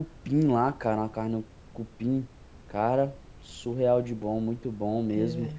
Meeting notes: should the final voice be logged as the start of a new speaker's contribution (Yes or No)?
Yes